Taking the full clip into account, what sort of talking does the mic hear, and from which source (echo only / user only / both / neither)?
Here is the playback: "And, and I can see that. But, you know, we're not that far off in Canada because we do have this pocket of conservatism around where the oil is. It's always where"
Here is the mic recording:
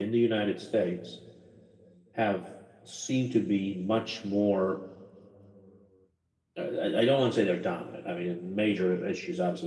user only